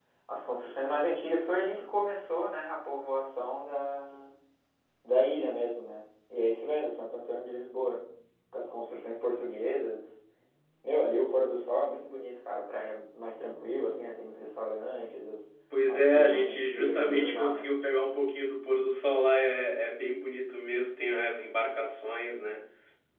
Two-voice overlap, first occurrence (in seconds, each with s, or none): 15.7 s